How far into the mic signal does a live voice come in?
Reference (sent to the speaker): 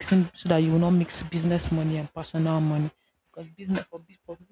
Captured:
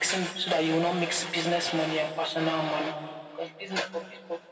none

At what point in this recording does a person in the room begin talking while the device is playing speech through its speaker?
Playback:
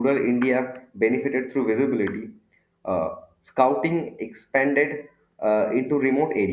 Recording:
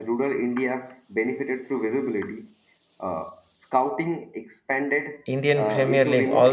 5.2 s

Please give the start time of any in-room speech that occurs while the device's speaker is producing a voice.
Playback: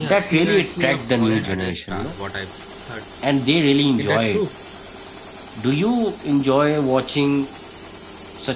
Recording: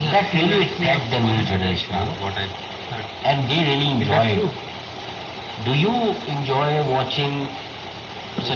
none

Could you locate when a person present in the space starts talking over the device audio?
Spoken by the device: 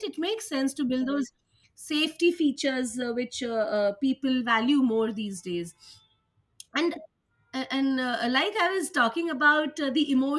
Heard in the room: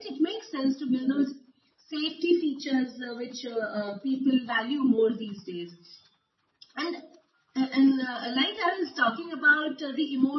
none

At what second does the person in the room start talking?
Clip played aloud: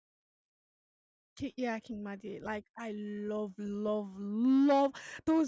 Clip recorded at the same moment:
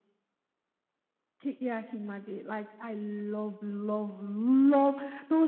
none

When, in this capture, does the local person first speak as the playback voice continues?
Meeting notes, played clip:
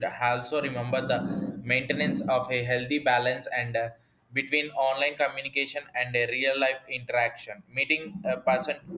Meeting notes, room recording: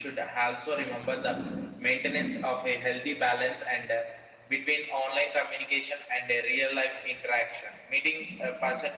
none

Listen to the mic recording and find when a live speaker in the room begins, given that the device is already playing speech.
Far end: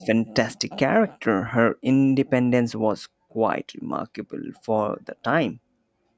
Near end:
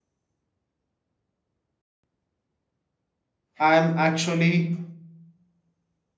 3.6 s

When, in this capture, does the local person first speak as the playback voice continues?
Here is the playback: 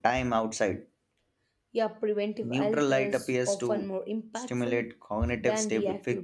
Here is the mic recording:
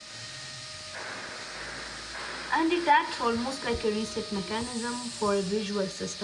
2.5 s

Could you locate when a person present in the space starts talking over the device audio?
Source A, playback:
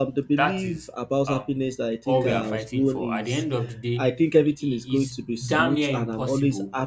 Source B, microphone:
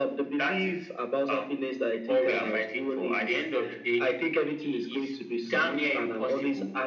none

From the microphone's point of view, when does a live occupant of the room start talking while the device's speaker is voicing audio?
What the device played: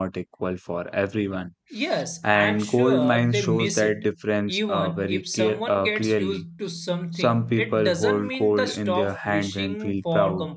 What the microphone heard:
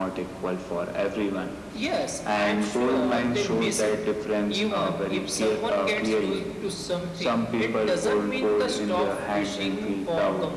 none

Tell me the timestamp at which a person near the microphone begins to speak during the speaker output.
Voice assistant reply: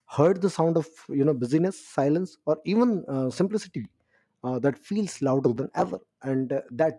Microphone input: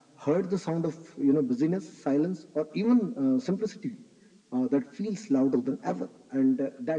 none

